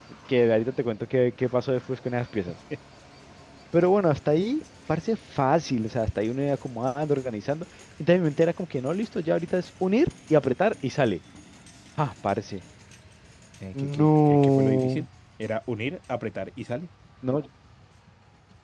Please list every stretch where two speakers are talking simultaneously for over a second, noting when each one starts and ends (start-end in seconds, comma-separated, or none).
13.8-15.0